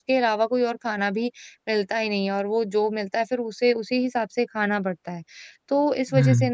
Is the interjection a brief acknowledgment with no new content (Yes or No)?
Yes